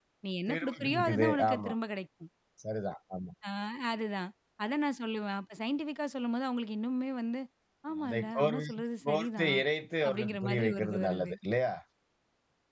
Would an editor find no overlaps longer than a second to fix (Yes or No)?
No